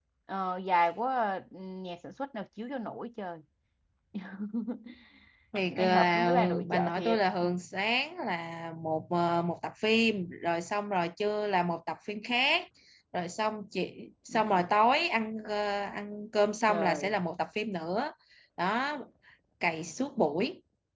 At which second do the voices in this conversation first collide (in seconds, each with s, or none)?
5.7 s